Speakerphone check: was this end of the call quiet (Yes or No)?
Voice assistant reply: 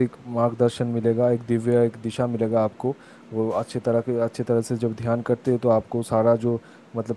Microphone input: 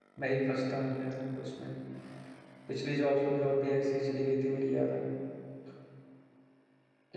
No